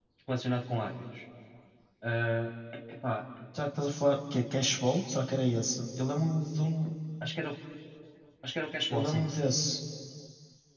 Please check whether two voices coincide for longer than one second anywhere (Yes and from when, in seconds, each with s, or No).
No